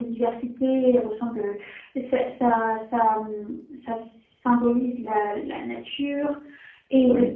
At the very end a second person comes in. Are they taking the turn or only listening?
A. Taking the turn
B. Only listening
B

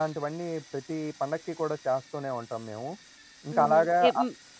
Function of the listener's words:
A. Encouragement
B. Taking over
B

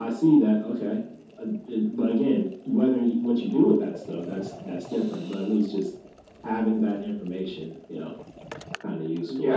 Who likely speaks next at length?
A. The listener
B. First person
A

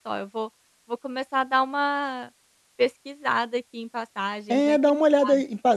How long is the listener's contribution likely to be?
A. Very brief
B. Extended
B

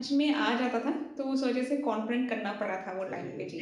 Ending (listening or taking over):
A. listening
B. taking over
B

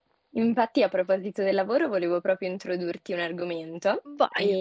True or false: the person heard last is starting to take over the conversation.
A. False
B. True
A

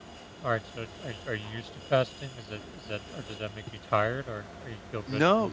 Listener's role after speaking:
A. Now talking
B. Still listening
A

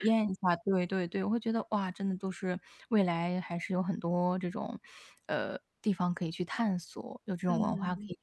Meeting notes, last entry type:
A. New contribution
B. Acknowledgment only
A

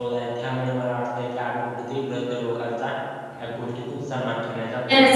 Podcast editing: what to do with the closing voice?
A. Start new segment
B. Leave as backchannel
A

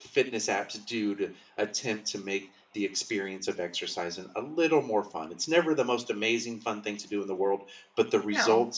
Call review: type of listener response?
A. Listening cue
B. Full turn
A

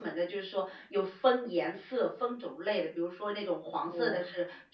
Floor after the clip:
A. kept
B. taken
A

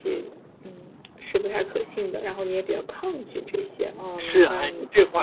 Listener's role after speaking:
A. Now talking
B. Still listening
A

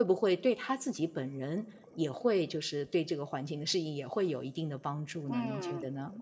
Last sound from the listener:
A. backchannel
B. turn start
B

